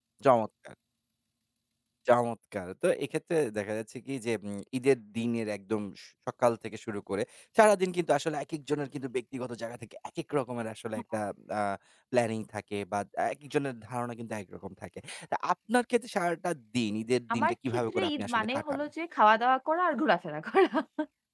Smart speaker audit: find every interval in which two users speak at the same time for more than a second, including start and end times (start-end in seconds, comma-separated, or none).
17.3-18.8